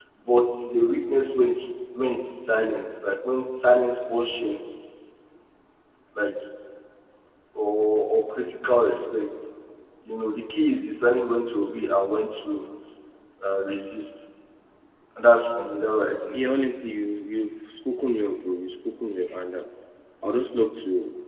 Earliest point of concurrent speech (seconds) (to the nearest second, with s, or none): none